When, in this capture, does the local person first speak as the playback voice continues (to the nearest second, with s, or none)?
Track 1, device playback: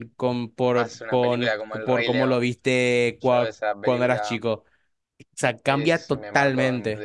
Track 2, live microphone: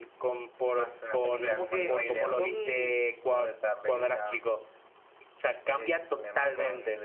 1 s